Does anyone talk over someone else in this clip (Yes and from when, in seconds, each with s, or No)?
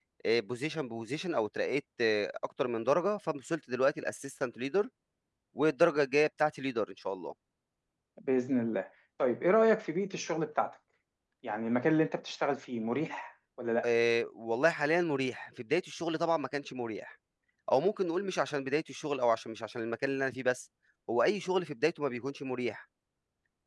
No